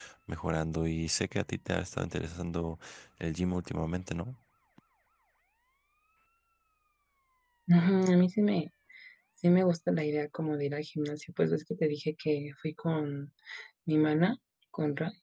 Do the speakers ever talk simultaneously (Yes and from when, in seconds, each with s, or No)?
No